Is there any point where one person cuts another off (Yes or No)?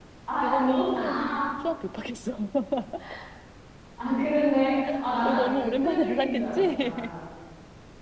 Yes